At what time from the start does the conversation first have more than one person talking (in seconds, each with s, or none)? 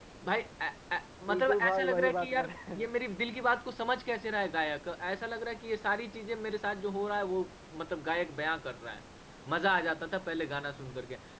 1.3 s